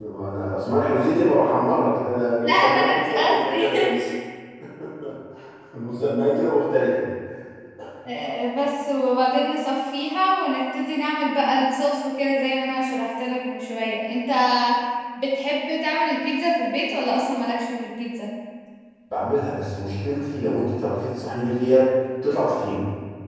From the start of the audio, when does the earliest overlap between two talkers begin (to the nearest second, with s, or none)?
2 s